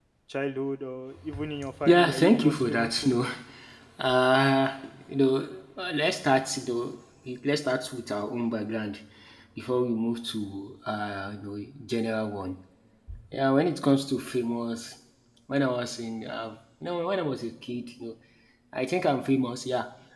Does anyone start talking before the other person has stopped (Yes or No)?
Yes